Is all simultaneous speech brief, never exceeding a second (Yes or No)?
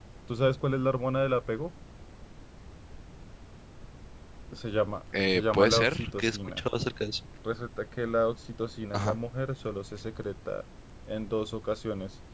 No